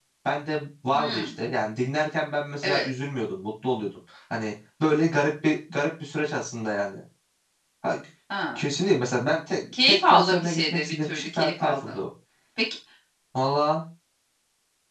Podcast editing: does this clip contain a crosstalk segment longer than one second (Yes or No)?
Yes